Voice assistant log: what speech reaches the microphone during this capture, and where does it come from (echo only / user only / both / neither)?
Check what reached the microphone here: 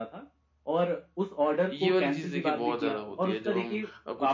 both